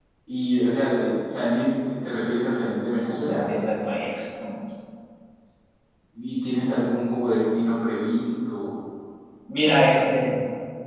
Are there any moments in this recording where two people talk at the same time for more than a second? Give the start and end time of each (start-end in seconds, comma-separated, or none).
none